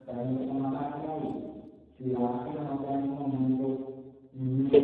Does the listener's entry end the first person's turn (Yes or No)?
Yes